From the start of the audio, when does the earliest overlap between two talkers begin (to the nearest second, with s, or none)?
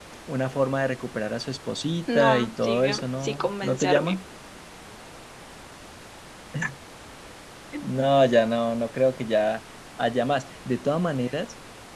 2 s